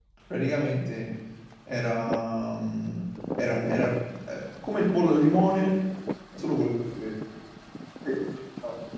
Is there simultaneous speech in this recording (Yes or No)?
No